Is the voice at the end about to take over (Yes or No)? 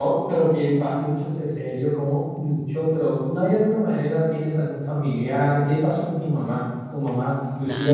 Yes